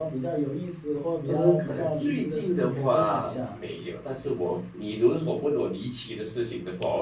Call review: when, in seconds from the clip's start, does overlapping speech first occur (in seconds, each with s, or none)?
1.3 s